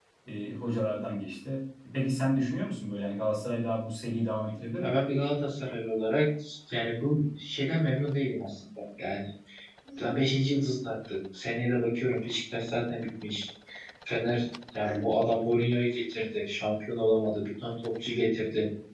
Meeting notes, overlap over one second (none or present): none